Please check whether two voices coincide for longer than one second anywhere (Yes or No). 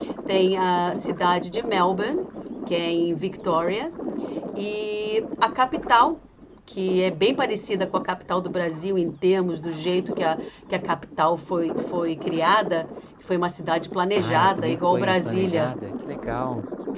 Yes